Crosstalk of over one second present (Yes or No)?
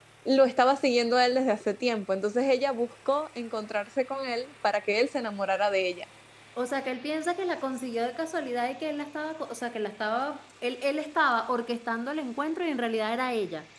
No